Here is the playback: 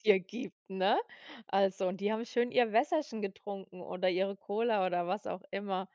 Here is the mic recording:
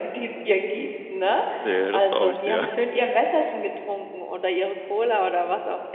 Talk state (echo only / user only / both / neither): both